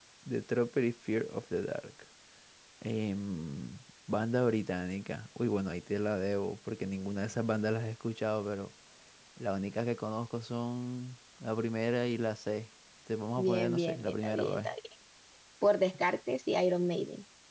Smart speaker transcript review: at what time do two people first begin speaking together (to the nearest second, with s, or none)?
13 s